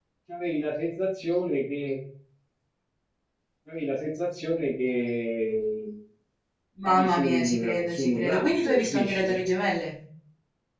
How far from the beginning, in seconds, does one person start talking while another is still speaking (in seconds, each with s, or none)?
6.8 s